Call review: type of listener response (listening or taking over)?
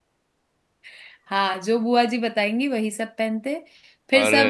listening